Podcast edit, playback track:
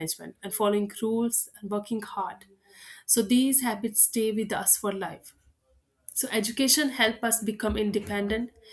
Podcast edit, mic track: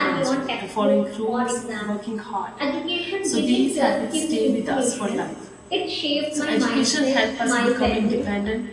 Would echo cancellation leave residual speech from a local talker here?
Yes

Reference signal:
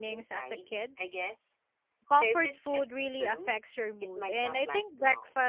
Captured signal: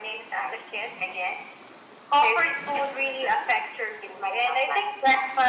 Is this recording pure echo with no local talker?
Yes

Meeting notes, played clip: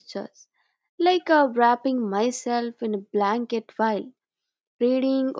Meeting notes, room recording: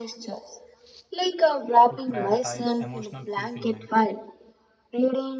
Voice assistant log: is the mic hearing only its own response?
No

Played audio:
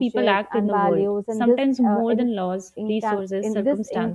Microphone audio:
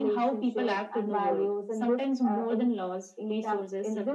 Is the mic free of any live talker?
Yes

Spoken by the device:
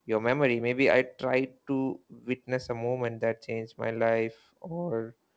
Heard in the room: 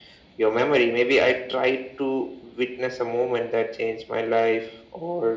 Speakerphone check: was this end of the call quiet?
Yes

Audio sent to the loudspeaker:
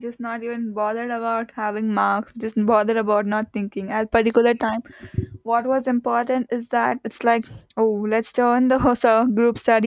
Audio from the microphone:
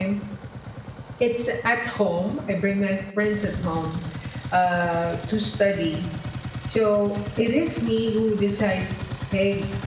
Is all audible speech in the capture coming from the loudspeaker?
No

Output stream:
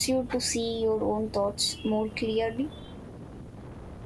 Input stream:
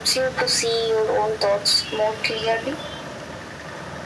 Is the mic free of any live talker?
Yes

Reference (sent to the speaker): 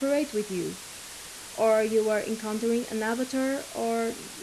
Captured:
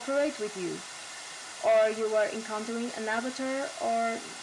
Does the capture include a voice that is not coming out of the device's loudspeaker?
No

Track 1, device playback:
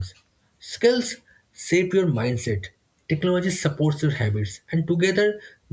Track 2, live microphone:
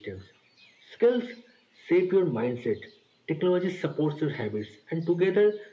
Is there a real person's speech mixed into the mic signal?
No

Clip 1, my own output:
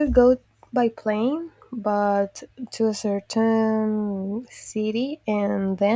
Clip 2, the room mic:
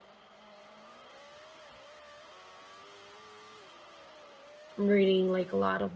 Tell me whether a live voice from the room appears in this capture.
Yes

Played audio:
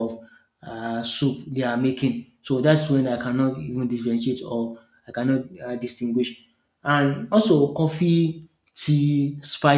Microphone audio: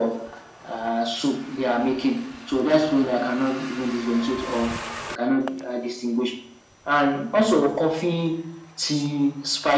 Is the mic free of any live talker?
Yes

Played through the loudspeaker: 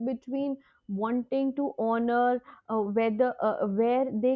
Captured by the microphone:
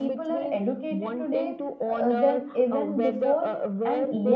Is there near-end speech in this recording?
Yes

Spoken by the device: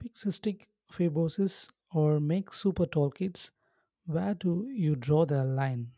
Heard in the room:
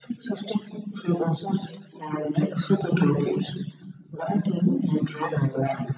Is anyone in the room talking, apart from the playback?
No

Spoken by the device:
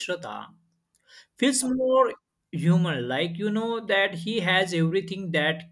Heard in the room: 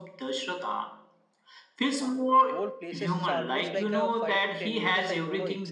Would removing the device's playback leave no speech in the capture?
No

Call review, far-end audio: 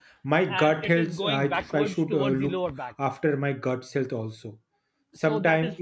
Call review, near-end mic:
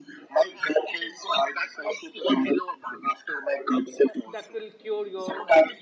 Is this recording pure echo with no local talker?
No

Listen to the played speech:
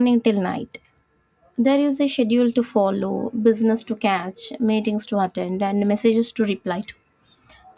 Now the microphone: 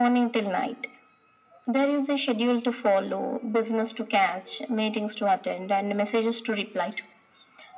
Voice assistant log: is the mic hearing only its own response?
Yes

